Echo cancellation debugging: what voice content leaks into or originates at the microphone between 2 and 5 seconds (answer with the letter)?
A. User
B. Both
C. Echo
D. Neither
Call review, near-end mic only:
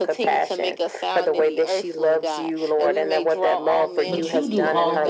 B